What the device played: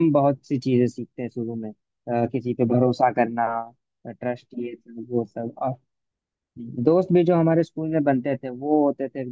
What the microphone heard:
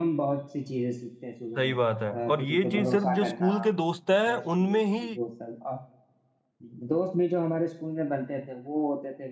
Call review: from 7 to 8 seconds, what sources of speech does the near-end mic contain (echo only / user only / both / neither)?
echo only